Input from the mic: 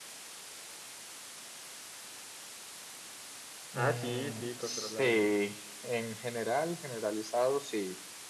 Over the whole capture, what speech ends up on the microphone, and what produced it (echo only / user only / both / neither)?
both